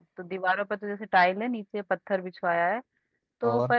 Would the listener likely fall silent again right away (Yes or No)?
Yes